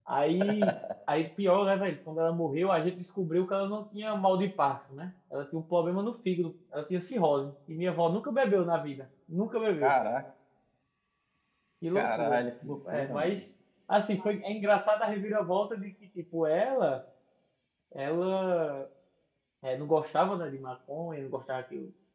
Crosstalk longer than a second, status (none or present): present